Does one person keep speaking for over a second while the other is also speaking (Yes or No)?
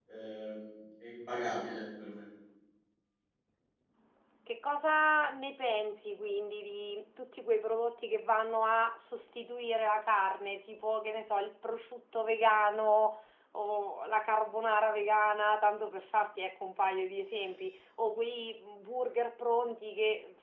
No